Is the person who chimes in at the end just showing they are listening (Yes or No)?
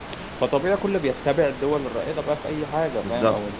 Yes